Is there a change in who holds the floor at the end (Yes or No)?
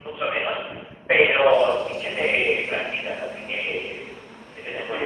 Yes